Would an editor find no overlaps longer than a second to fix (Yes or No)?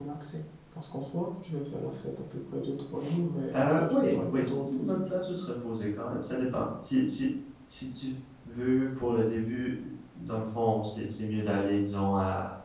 No